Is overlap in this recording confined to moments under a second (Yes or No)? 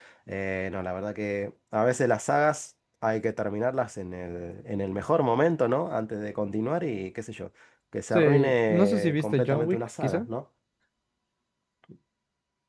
No